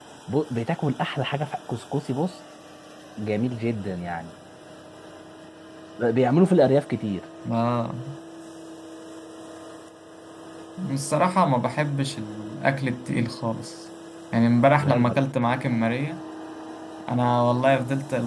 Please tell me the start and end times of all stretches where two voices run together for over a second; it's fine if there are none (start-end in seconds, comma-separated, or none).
none